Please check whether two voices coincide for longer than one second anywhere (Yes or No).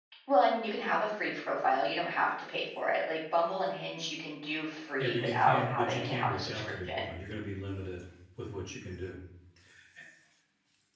Yes